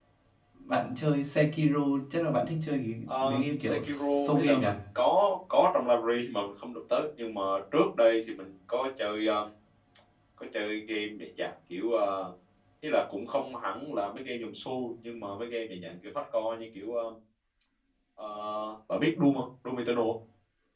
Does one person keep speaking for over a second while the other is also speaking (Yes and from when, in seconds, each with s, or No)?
Yes, from 3.1 s